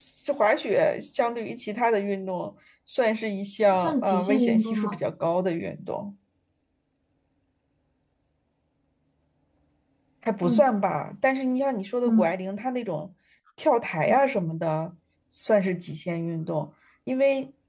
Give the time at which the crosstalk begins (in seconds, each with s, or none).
3.7 s